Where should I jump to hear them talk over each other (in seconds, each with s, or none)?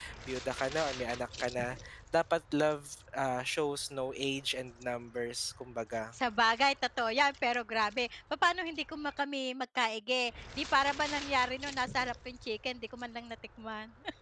none